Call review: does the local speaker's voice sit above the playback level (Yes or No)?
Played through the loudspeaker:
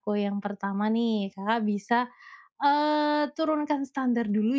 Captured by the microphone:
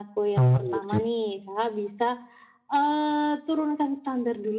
Yes